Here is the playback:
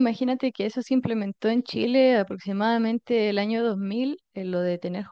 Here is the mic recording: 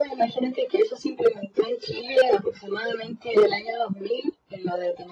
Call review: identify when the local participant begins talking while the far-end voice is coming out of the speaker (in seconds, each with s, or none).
none